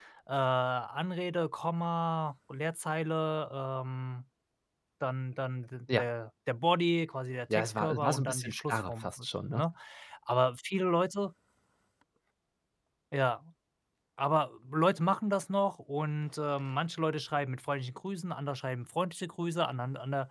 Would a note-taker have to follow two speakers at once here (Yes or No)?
Yes